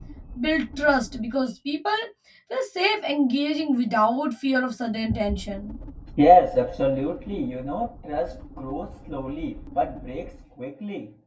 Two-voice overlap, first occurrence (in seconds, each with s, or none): none